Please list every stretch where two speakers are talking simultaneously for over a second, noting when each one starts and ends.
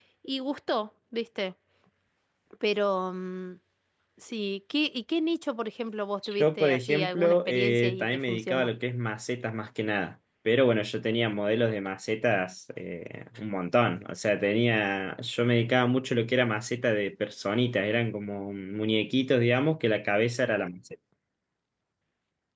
6.4-8.7

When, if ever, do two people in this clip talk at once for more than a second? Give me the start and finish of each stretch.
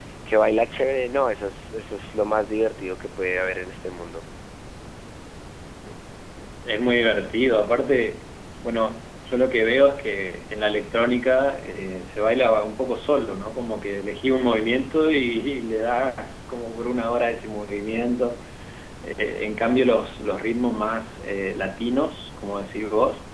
none

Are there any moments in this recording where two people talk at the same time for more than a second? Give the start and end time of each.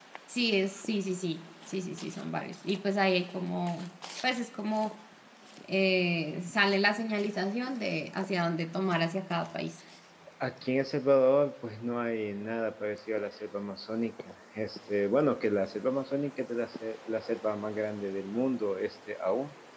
none

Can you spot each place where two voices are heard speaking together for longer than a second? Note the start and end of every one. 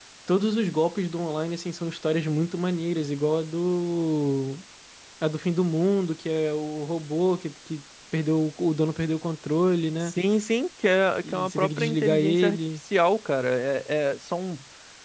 11.2-12.6

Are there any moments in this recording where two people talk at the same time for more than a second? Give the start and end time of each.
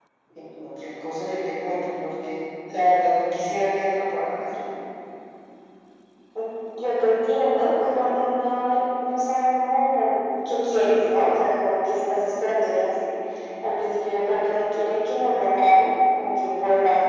none

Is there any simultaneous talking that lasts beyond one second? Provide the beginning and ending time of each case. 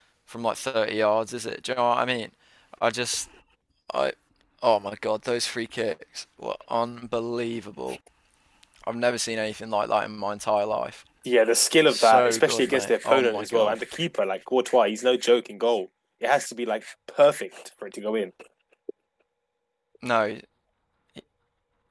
11.9-13.8

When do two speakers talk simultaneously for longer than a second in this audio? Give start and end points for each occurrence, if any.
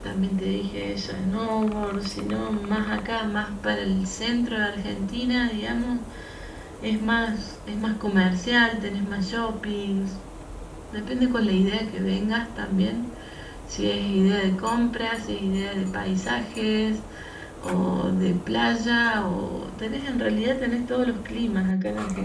none

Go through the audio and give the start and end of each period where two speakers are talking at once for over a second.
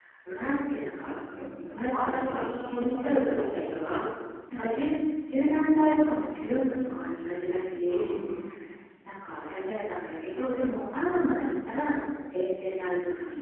1.9-3.7

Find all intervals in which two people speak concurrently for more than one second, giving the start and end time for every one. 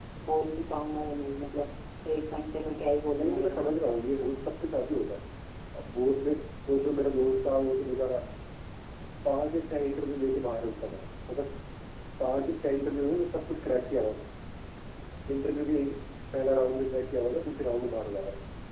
none

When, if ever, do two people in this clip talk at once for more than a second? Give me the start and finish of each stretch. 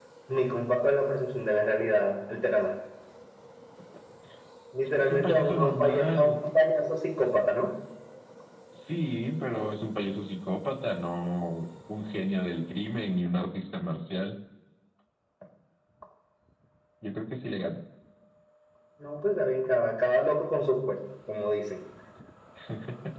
4.8-6.3

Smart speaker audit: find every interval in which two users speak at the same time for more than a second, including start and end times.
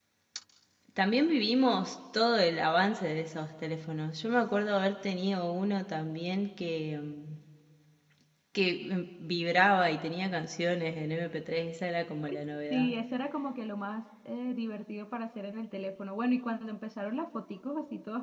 none

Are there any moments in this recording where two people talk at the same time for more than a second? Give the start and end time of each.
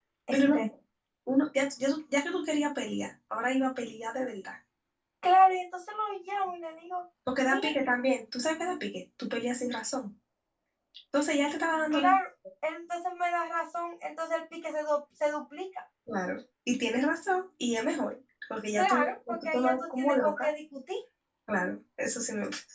18.8-20.5

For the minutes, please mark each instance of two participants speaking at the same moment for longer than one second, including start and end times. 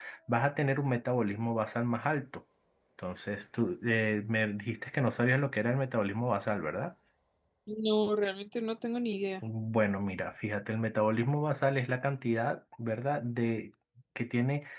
none

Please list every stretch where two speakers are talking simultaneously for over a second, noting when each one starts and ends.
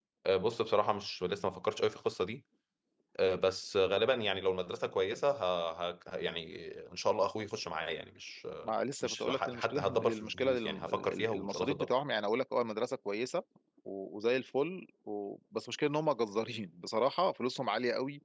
9.0-11.9

